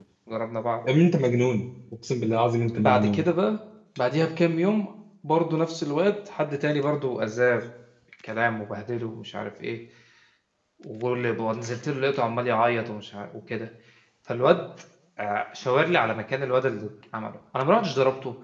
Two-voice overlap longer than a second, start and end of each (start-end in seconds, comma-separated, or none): none